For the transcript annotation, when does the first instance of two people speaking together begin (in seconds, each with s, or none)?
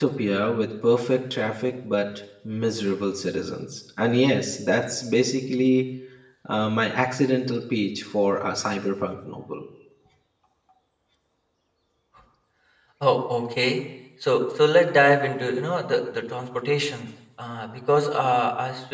none